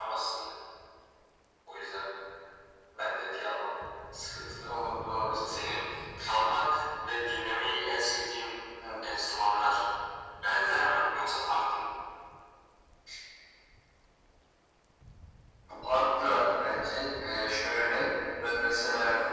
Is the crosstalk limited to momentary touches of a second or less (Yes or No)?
Yes